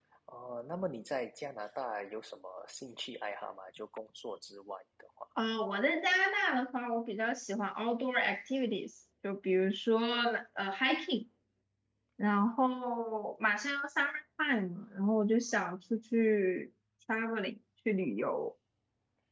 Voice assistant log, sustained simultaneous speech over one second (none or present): none